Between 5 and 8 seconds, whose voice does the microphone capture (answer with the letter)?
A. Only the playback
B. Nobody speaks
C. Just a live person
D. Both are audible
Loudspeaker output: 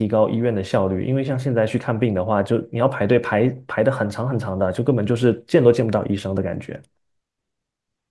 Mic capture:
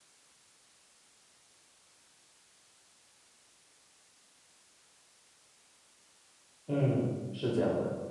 C